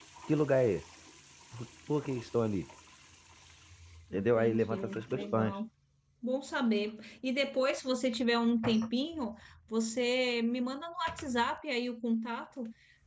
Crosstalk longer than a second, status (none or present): present